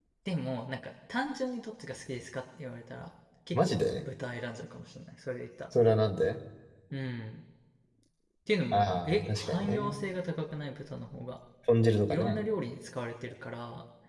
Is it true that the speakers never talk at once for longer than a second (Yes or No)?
No